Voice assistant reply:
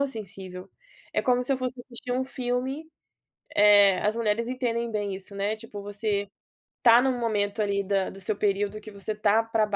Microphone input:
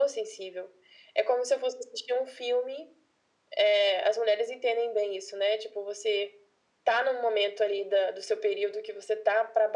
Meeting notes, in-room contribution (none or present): none